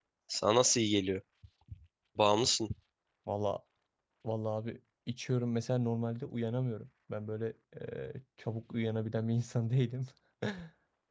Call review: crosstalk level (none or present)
none